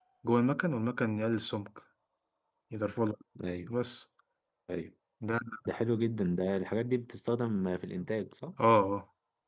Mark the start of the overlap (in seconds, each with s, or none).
none